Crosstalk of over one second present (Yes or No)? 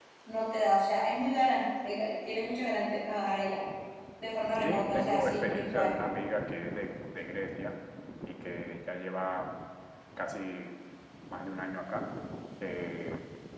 Yes